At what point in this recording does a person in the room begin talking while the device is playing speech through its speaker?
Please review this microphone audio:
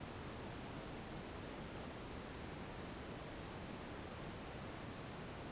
none

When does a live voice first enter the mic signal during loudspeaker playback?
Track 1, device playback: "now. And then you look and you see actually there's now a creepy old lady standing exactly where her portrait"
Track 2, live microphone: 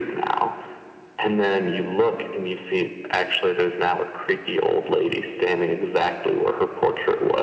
none

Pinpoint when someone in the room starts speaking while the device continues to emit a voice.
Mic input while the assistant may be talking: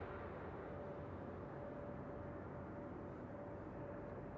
none

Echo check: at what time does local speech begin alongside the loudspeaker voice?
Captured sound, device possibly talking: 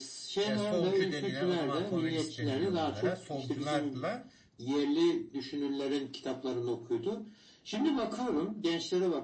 0.4 s

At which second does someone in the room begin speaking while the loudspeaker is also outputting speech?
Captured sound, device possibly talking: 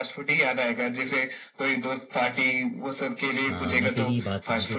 3.4 s

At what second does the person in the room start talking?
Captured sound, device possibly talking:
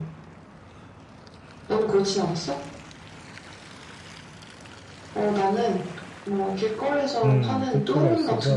7.2 s

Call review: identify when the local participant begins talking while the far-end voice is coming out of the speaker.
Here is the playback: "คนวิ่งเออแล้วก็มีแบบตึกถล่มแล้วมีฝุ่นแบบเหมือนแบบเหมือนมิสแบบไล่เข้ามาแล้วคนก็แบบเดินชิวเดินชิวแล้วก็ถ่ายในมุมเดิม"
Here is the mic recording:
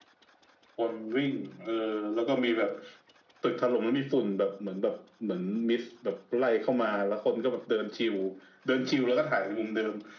none

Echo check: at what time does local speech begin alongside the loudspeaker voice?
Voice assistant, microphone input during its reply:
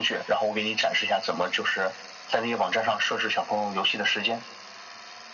none

